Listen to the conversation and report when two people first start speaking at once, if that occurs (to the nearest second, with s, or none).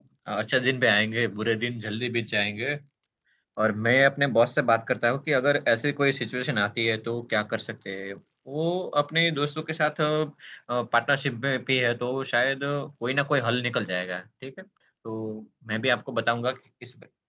none